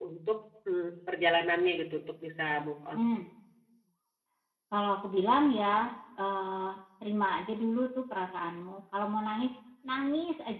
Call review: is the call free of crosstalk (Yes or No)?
Yes